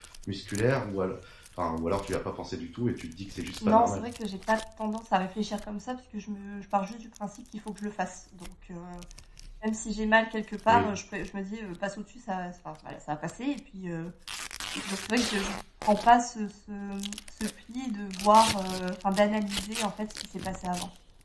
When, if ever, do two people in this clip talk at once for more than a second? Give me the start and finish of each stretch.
none

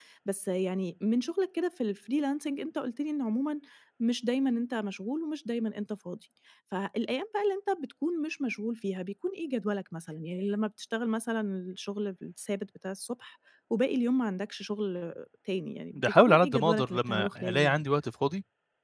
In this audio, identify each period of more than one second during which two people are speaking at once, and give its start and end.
15.9-17.8

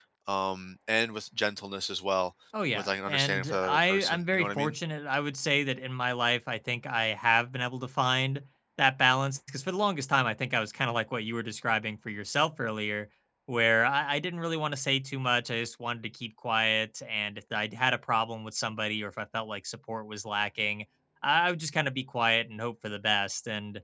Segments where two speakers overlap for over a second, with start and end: 2.7-4.8

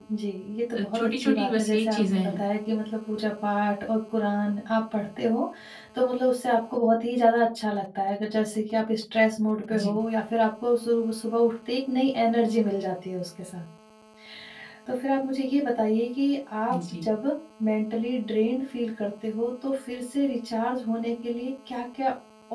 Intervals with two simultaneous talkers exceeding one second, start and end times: 0.7-2.4

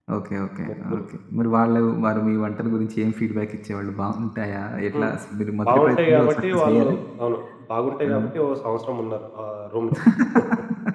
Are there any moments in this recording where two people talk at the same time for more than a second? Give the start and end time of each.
5.7-6.9

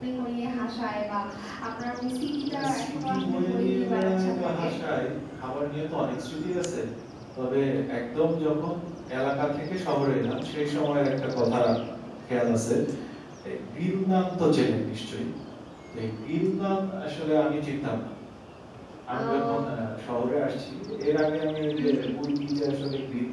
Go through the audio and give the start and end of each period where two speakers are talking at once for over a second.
2.4-4.6

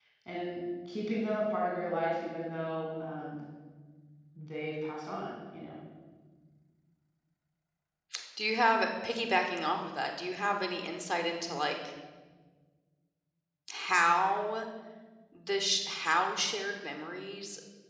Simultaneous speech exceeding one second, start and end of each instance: none

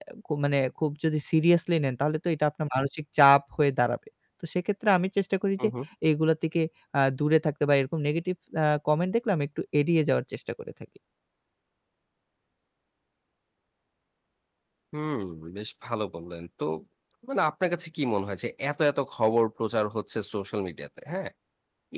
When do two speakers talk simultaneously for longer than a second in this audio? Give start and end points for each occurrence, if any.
none

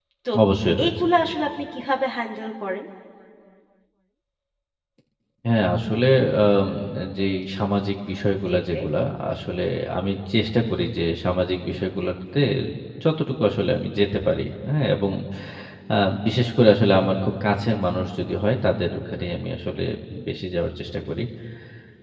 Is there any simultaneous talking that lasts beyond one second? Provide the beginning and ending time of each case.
none

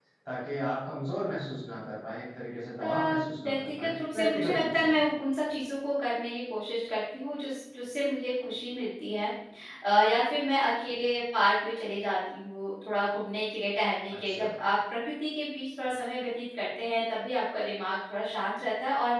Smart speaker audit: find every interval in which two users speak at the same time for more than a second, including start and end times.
3.4-5.0

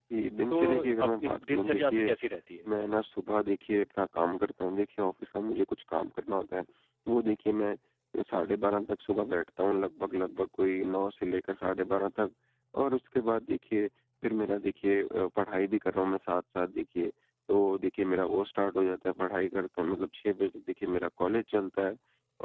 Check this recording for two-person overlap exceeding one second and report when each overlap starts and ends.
0.5-2.1

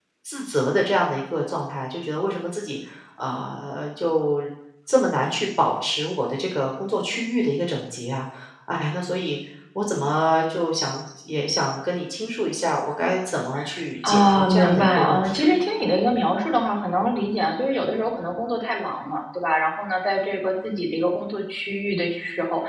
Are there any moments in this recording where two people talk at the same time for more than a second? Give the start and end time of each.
14.1-15.4

